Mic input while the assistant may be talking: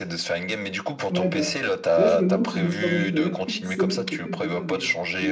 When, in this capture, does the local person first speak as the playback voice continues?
1.1 s

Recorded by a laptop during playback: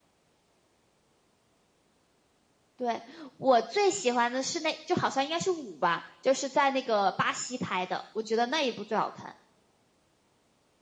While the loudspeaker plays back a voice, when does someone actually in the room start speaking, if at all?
none

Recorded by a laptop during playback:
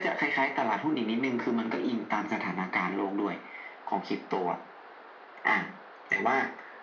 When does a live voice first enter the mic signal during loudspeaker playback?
none

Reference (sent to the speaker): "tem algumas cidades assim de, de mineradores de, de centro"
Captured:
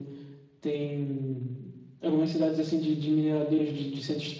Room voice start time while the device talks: none

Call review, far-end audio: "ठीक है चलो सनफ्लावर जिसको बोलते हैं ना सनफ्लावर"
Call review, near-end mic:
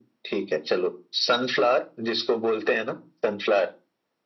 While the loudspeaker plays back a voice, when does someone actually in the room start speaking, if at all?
none

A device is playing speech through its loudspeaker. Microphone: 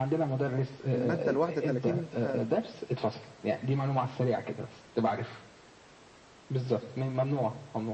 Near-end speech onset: 0.9 s

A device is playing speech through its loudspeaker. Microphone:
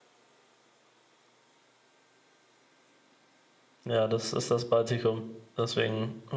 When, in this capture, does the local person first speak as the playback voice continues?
3.8 s

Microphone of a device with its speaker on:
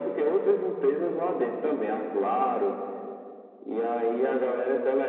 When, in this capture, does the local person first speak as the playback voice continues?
none

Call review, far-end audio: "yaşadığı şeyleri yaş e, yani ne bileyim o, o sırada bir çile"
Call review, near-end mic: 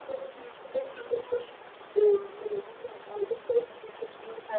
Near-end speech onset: none

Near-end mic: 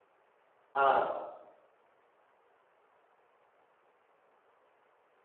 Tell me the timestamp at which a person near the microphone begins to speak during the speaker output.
0.8 s

